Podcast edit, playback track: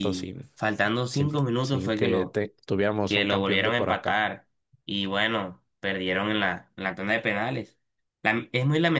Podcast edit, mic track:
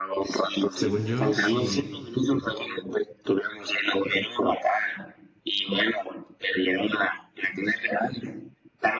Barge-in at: 1 s

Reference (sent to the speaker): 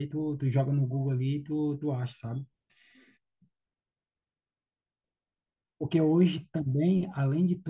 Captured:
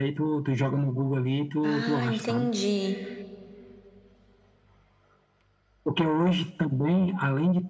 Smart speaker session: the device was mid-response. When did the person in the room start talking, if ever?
2 s

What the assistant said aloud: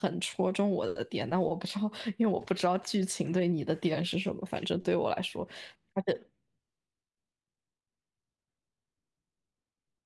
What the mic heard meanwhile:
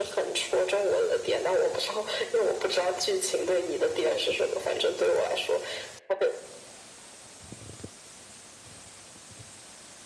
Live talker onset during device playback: none

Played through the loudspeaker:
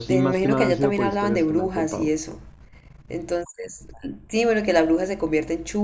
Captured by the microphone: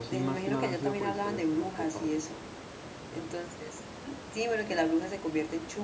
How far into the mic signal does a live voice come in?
none

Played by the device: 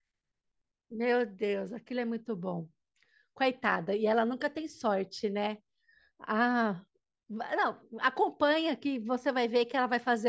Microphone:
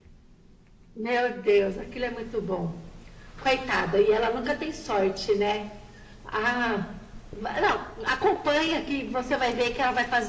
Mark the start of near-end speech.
none

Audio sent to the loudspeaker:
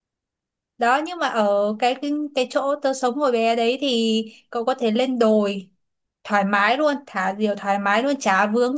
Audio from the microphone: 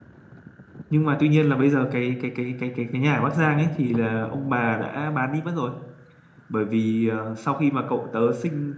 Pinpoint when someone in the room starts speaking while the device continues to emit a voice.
1 s

